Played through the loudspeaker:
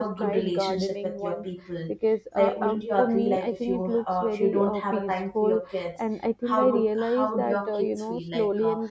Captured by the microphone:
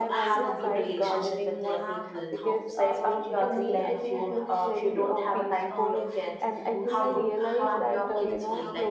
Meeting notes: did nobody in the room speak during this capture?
No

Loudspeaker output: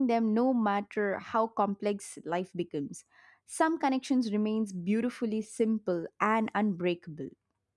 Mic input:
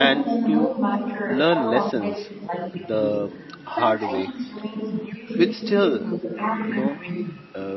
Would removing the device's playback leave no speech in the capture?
No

